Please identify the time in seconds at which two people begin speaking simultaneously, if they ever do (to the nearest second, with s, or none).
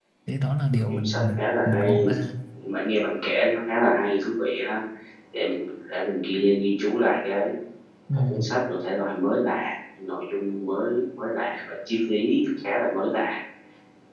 1 s